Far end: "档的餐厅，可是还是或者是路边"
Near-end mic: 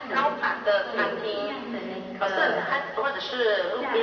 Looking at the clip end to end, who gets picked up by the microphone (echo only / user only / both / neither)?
both